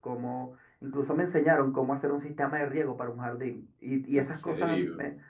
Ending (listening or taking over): listening